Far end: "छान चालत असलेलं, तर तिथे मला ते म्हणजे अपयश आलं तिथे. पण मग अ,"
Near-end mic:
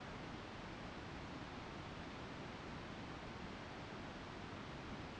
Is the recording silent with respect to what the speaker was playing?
Yes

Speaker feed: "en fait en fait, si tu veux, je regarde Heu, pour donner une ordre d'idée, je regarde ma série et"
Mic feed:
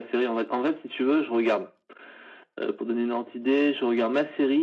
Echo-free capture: No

